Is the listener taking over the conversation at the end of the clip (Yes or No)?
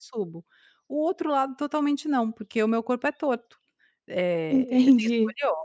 No